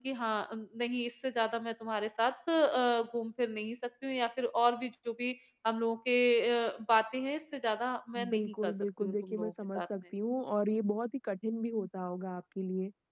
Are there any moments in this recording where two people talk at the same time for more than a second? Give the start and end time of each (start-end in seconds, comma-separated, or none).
8.3-9.9